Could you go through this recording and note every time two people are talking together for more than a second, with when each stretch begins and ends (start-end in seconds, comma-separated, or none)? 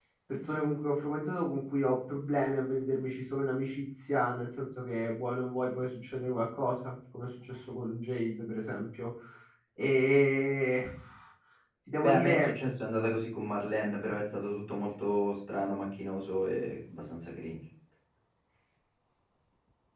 none